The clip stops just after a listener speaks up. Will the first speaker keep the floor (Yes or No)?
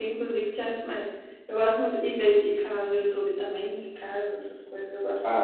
No